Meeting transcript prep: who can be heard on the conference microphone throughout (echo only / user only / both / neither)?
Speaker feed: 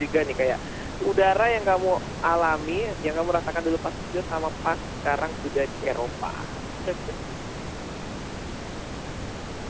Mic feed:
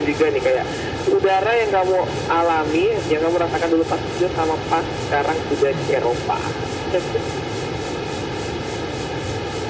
both